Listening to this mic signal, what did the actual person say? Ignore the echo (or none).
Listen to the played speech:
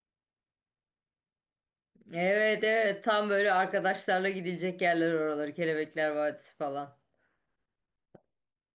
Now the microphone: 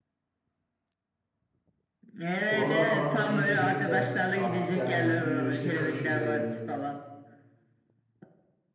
Oralar falan dediğin gibi biraz artık yani lükse kaçıyor böyle.